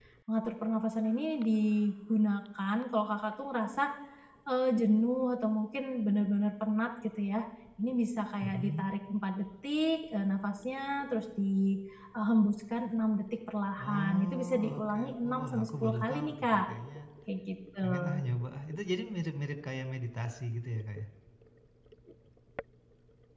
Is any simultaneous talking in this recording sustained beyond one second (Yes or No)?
Yes